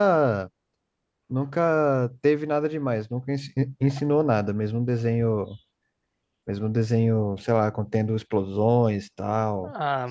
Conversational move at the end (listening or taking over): taking over